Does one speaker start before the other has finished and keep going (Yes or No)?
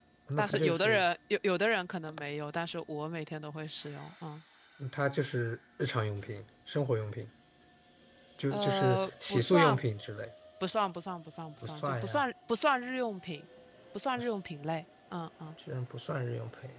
Yes